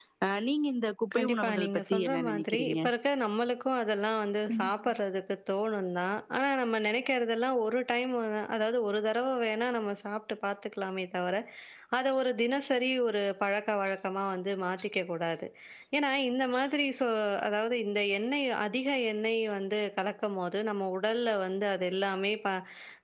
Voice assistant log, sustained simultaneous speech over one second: present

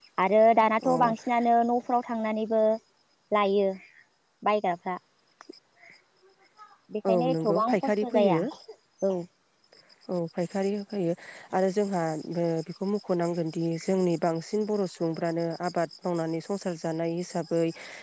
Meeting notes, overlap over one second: present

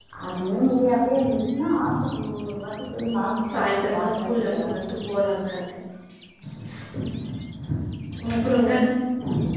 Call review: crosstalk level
present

